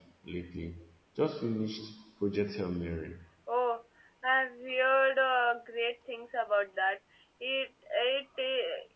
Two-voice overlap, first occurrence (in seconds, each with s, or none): none